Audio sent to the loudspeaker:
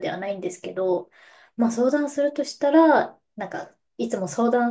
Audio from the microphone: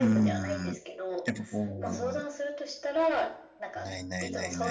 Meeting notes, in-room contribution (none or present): present